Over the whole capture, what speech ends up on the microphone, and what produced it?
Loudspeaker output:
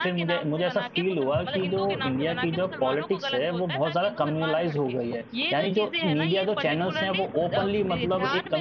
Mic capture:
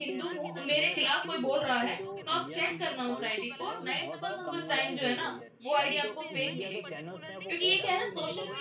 both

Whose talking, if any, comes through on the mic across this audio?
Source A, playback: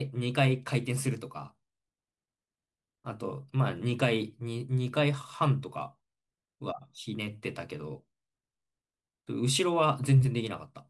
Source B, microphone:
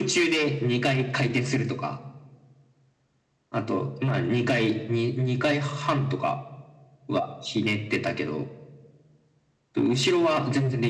echo only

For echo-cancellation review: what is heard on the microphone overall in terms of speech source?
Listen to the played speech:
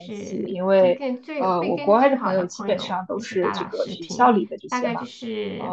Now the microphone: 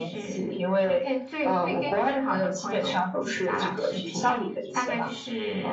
echo only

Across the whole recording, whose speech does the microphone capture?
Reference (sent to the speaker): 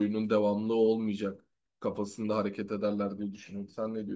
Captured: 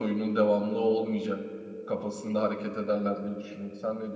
echo only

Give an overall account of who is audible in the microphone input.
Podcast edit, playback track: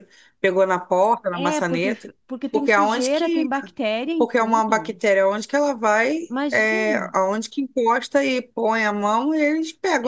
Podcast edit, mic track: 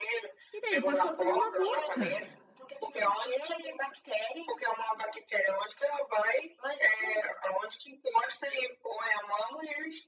both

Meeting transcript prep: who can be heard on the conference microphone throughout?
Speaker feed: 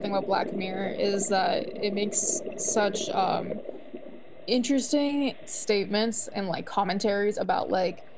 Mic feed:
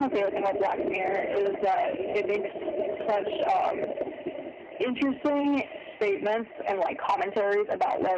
echo only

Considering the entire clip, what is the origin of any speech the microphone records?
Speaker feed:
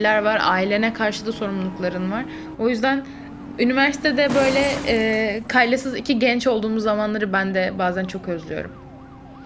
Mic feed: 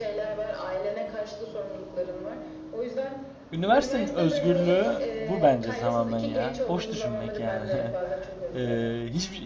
both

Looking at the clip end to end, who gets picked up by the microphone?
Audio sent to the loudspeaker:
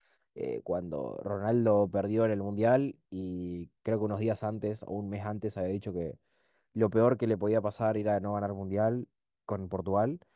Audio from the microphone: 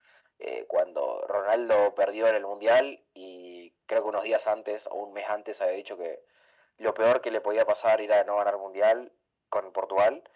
echo only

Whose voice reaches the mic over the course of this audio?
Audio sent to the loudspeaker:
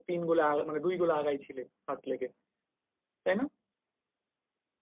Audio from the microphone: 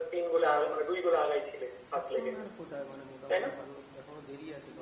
both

